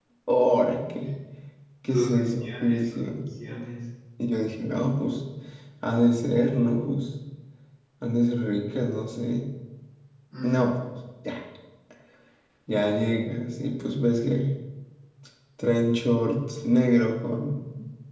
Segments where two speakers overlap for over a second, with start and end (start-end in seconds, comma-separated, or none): 1.9-3.2